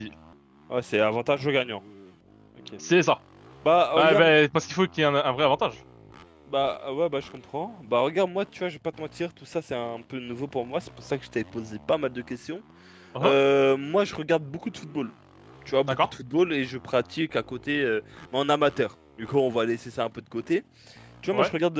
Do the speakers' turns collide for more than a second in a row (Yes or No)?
No